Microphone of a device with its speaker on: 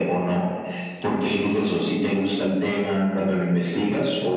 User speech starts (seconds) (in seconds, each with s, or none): none